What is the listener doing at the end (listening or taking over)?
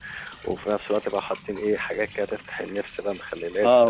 taking over